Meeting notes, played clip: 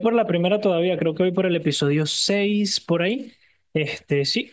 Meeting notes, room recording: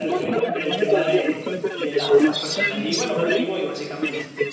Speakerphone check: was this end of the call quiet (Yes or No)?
No